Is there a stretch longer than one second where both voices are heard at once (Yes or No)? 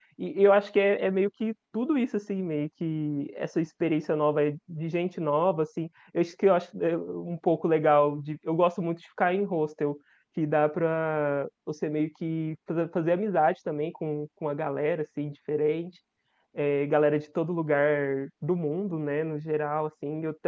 No